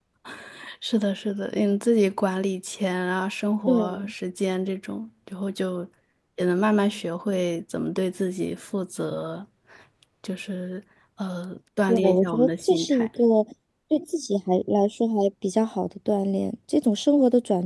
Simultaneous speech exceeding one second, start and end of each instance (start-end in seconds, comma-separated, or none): 11.9-13.1